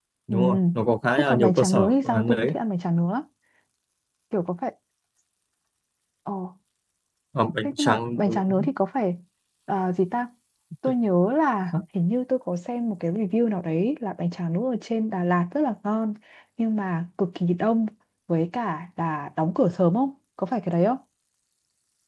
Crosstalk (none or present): present